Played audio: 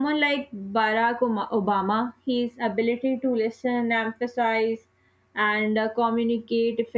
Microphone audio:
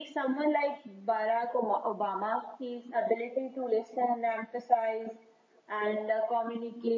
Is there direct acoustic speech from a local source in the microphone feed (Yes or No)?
No